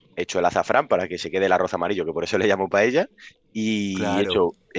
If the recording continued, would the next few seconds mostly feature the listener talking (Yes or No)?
No